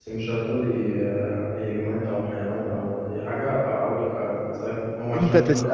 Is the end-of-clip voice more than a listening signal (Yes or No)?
Yes